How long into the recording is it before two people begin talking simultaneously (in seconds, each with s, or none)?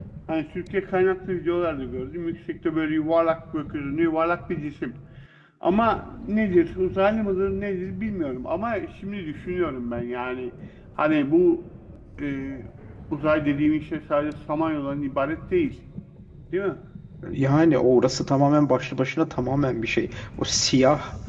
none